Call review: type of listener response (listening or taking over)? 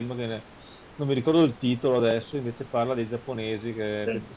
listening